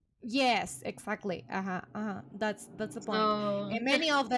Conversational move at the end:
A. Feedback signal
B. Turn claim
A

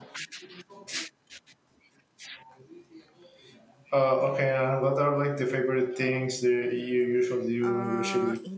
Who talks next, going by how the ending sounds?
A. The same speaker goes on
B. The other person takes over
B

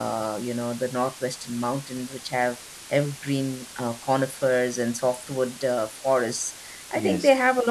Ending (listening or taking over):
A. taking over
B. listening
B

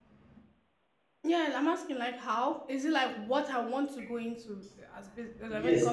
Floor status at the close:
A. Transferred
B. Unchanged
A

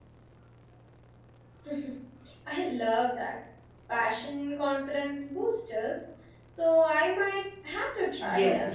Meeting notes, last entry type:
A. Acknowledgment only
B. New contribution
B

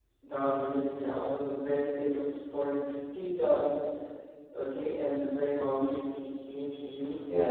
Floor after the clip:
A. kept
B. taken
B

